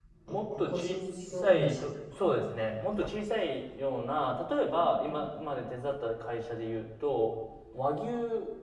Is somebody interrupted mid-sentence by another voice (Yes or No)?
Yes